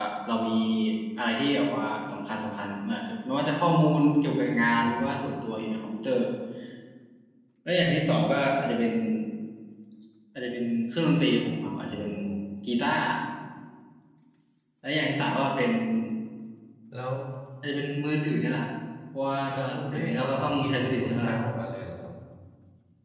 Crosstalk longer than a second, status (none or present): present